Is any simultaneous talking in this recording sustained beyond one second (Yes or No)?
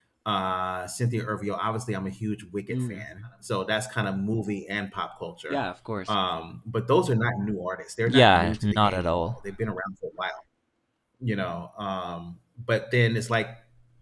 Yes